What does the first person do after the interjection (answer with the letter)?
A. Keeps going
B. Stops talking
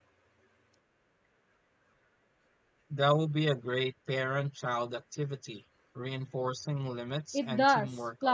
B